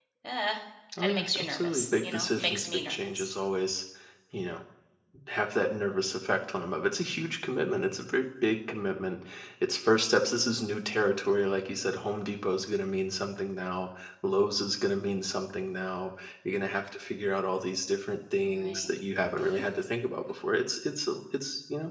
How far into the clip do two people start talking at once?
1.0 s

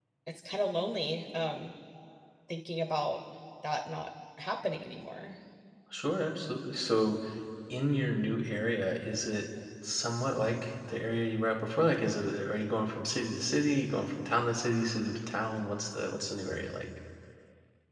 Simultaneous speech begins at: none

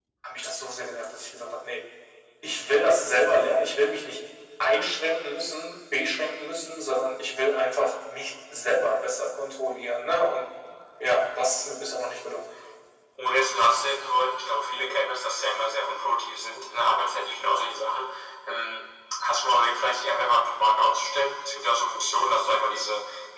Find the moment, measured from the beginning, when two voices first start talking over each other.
none

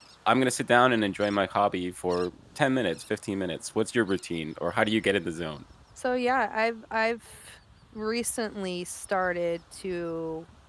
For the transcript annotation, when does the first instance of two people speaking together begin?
none

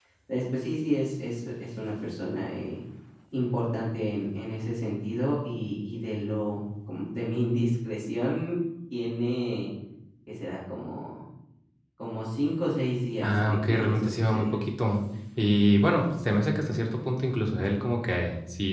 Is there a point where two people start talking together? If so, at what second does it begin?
13.2 s

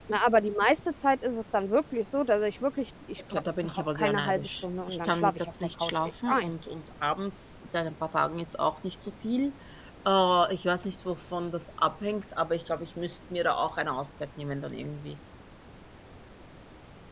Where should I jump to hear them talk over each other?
3.3 s

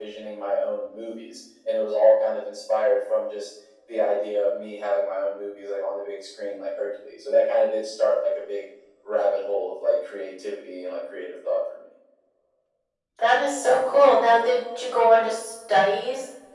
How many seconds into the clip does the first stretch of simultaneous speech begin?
none

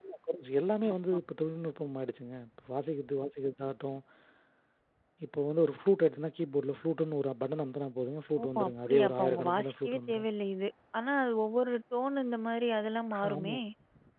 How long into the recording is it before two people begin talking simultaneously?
8.4 s

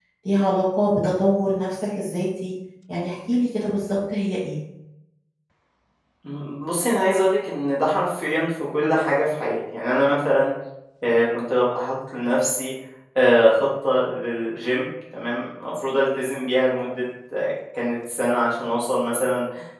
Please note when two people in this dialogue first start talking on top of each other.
none

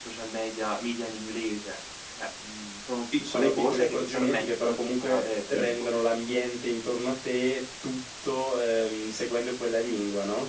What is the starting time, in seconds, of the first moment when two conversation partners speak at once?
3.2 s

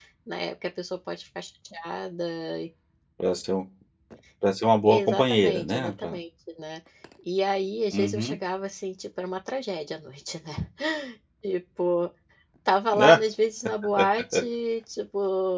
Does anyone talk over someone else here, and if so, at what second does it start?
4.8 s

